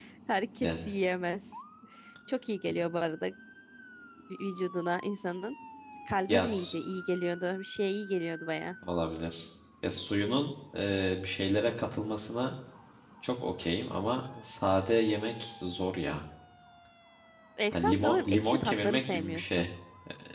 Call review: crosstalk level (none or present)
present